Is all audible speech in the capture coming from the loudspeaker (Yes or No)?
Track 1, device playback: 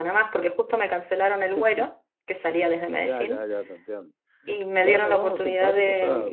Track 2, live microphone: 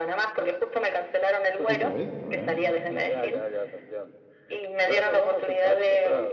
No